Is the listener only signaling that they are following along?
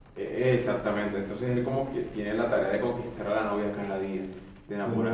Yes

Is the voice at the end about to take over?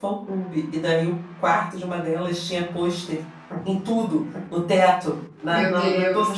No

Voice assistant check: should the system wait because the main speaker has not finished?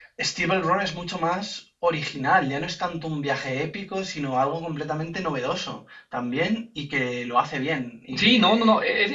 No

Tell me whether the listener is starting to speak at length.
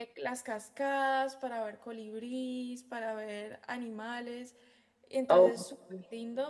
No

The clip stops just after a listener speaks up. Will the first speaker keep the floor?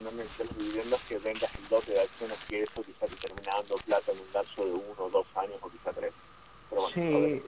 No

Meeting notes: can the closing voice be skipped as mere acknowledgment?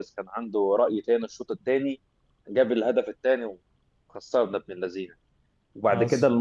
Yes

